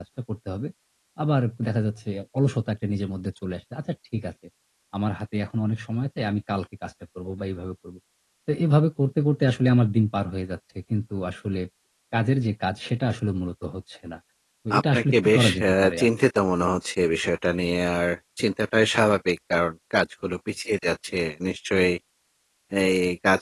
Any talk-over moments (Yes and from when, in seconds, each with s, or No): Yes, from 14.8 s